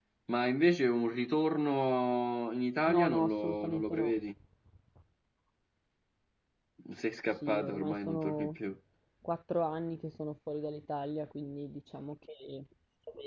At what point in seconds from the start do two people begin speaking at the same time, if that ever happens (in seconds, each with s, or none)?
2.9 s